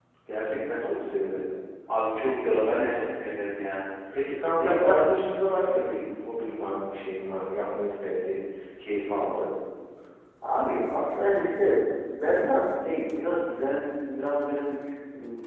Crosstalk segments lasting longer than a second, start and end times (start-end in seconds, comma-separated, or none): none